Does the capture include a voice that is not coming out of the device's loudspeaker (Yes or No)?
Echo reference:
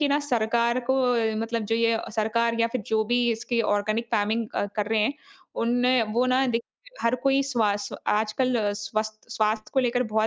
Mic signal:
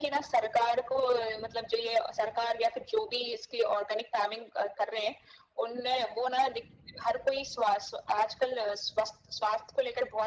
No